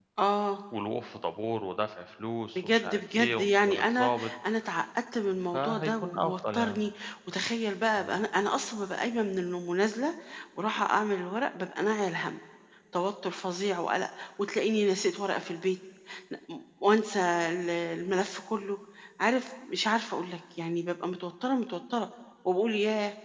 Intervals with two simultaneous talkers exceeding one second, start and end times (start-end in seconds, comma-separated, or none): 2.6-4.3, 5.5-6.8